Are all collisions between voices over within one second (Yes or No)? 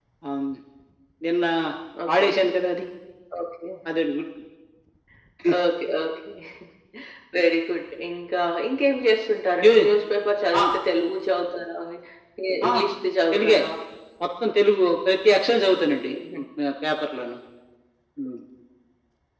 Yes